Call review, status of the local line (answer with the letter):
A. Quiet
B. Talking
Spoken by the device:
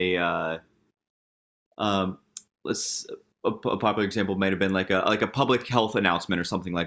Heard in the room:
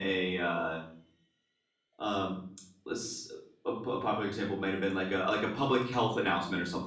A